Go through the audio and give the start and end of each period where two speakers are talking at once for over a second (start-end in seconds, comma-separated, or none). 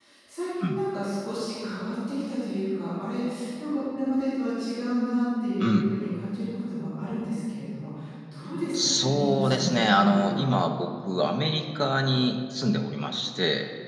8.7-10.5